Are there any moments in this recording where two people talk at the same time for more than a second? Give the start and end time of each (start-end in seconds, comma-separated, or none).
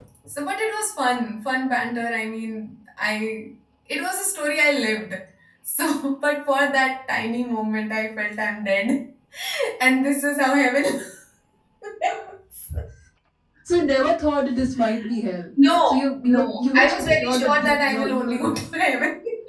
16.3-18.4